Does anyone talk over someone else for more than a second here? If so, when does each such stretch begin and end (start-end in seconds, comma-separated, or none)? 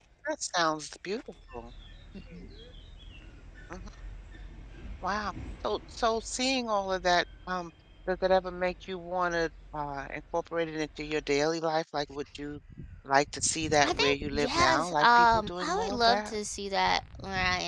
13.8-16.4